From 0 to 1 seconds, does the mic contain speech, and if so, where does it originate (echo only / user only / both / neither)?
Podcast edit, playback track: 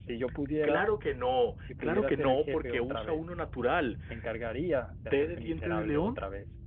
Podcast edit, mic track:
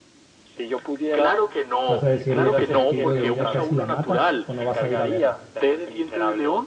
echo only